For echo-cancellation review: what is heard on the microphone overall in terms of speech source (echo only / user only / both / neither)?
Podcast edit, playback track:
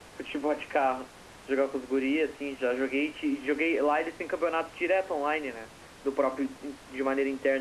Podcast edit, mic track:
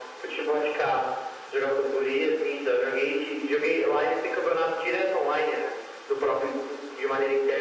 echo only